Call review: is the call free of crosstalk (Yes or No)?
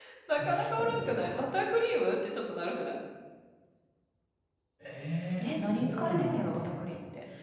No